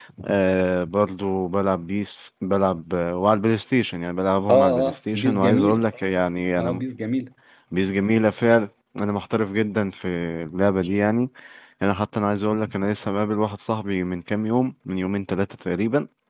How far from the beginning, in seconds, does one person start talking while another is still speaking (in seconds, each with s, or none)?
4.5 s